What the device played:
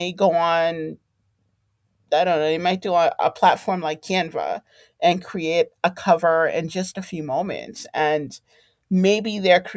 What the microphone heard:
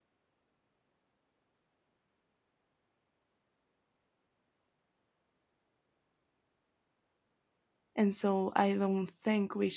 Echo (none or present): none